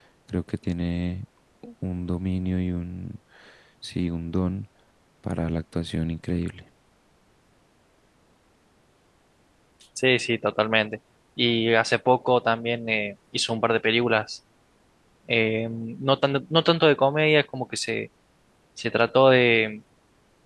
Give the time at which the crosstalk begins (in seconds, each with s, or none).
none